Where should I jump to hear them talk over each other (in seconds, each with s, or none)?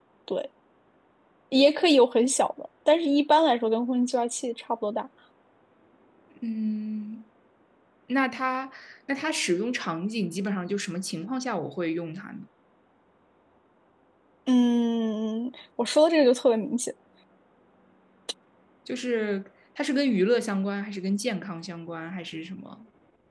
none